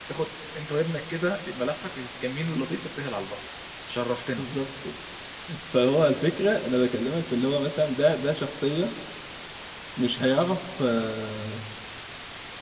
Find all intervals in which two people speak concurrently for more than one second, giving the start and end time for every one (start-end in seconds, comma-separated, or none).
none